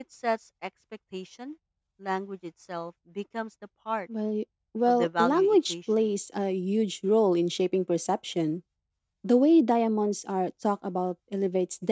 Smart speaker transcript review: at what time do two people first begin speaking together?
5 s

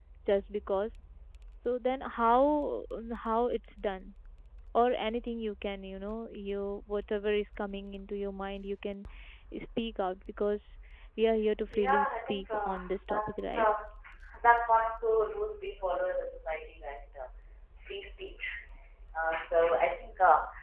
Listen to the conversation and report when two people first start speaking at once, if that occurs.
12 s

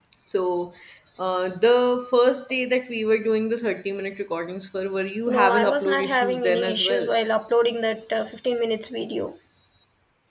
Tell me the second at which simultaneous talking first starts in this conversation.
5 s

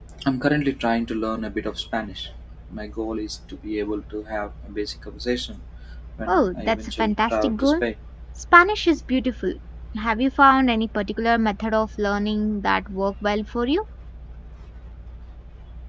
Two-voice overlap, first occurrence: 6 s

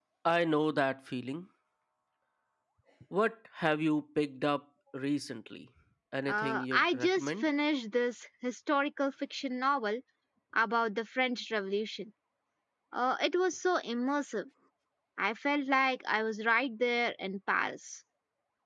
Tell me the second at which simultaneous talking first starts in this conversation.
6 s

